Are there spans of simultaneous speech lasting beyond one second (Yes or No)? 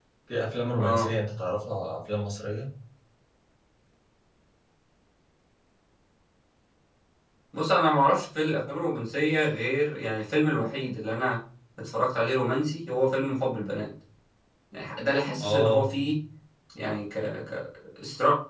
No